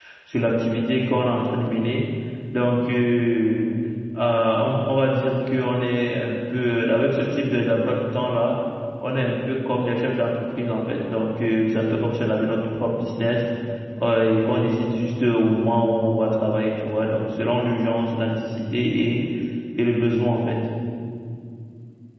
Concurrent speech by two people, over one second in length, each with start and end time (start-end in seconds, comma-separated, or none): none